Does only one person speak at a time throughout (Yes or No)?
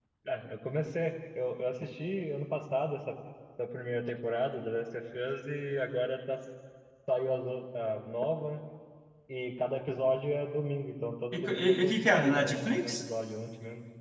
No